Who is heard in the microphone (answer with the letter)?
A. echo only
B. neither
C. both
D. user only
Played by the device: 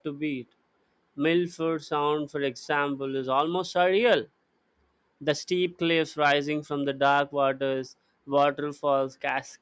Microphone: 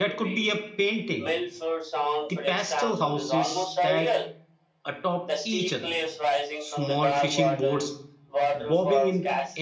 C